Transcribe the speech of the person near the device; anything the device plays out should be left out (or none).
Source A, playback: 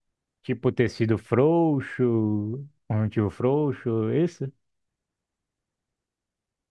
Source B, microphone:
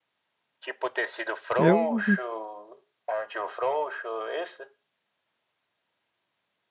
eu